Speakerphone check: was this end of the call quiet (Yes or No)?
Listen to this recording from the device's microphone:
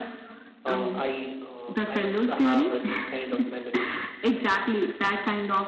No